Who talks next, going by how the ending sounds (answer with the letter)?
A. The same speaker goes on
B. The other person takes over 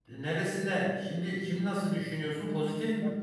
B